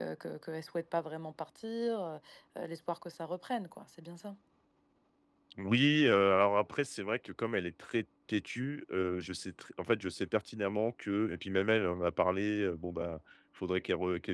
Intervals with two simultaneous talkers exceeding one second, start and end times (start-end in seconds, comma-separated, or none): none